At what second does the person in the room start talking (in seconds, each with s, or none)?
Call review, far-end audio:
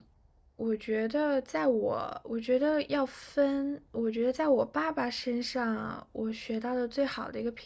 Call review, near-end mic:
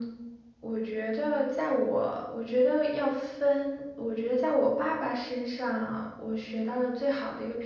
none